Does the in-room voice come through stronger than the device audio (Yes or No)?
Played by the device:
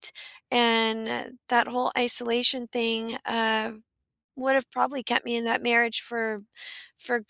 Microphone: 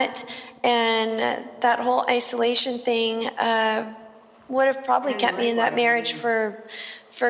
No